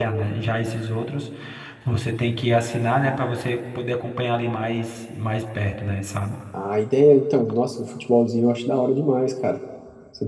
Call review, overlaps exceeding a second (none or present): none